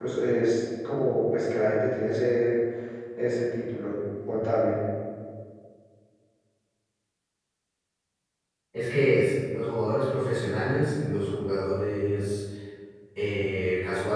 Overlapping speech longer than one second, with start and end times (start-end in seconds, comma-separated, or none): none